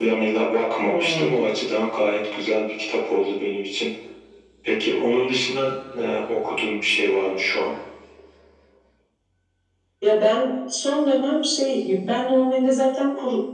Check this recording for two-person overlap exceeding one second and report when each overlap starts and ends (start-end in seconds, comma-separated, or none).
none